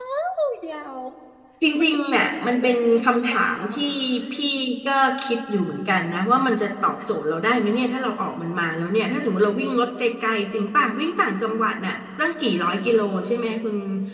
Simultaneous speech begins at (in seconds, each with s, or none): 1.8 s